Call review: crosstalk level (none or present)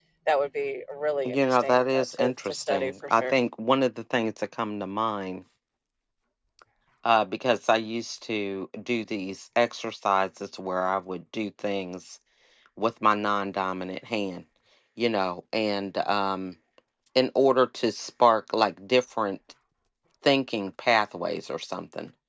present